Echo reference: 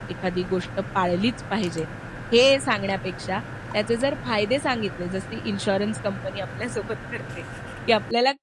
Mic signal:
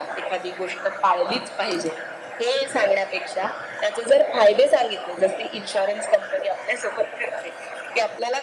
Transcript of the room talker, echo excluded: none

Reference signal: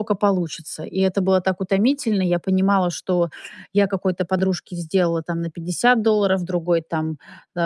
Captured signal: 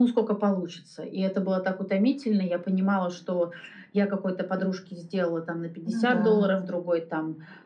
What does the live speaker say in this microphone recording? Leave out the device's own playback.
Ну да.

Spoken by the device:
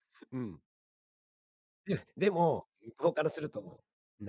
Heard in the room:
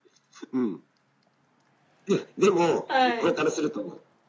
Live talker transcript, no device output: はい。

